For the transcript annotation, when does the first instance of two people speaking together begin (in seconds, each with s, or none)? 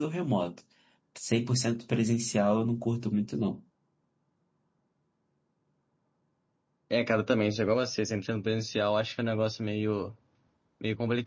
none